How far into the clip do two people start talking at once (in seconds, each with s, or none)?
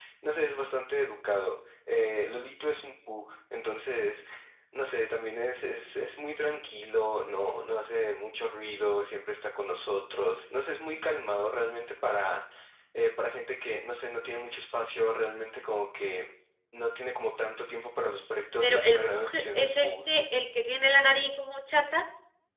18.6 s